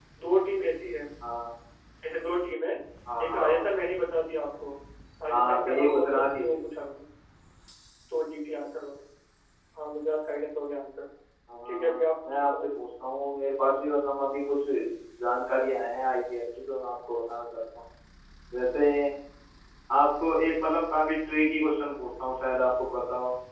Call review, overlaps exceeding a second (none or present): present